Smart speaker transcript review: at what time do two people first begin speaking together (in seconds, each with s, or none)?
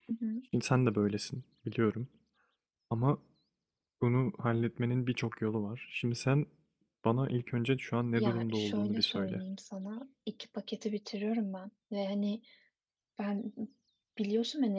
8.2 s